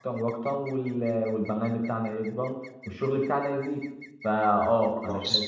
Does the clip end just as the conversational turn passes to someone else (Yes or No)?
No